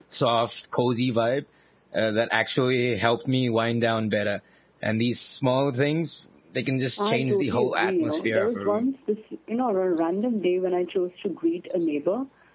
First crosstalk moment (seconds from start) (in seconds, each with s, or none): 7.0 s